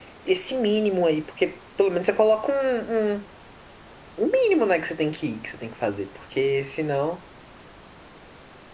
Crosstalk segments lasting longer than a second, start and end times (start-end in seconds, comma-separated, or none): none